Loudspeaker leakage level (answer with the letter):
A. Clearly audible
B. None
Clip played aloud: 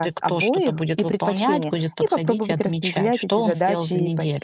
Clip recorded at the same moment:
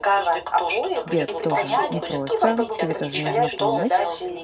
A